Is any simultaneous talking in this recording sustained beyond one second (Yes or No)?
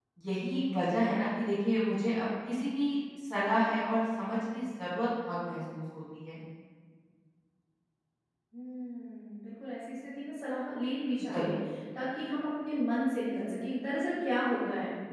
No